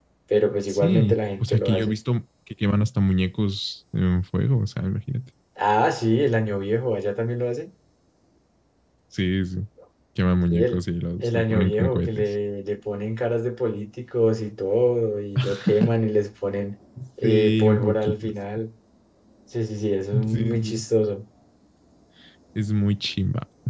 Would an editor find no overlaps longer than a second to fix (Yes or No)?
No